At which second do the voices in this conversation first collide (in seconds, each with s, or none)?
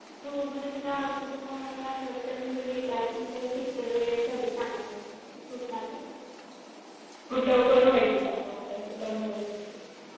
none